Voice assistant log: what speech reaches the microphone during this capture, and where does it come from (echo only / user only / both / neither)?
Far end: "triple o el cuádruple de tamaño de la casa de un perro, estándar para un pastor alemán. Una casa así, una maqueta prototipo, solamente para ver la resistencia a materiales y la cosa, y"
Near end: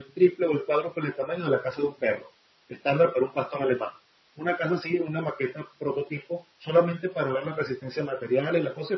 echo only